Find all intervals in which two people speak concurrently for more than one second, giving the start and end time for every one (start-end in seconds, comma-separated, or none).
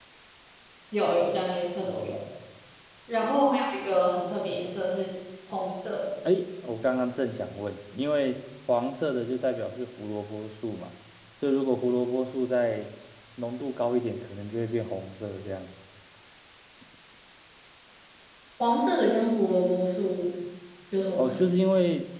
none